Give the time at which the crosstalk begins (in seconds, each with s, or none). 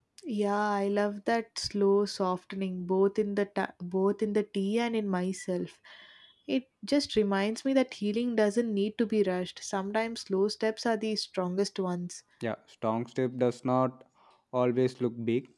none